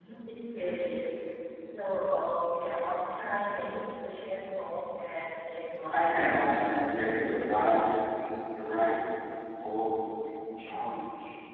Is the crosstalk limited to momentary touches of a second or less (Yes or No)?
No